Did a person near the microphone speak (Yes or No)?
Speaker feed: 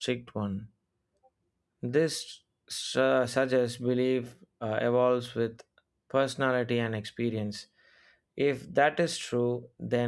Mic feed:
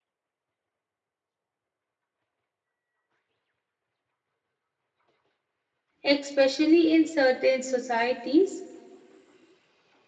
Yes